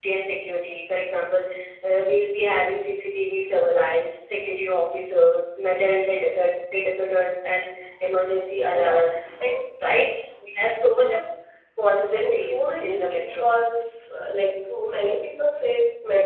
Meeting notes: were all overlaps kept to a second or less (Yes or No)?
No